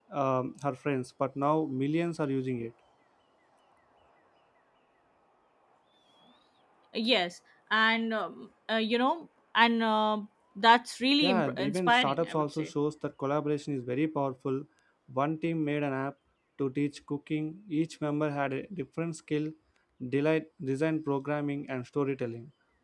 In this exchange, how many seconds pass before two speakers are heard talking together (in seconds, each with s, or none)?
11.2 s